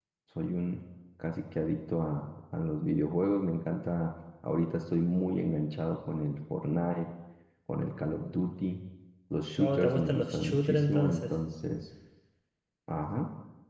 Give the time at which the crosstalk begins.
9.6 s

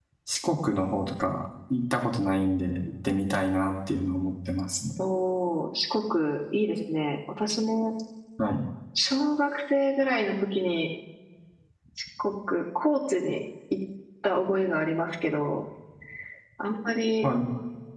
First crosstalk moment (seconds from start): none

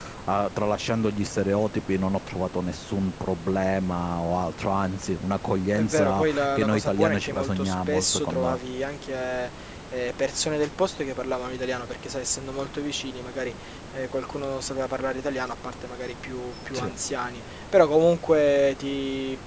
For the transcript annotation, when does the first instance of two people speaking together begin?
5.8 s

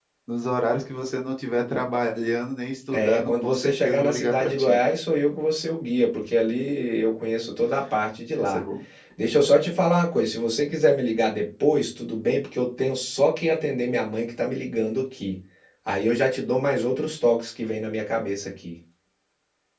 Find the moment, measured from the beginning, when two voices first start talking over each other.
2.9 s

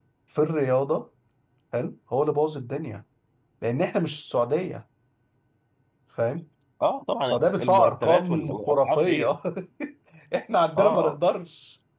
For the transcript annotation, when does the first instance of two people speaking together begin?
7.3 s

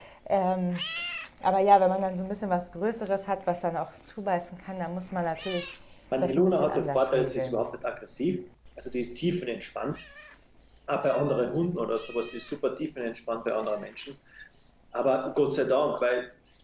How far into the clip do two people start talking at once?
6.2 s

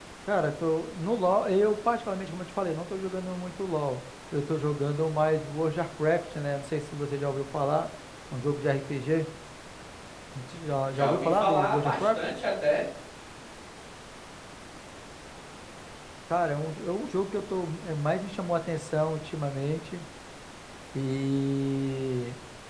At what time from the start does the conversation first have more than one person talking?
10.9 s

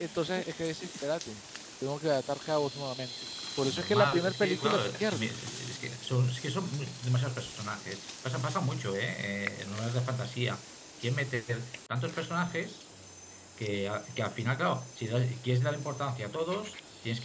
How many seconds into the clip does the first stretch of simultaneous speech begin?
3.6 s

